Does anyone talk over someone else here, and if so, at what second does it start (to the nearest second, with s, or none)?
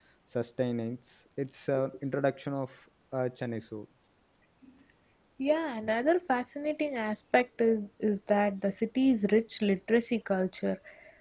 none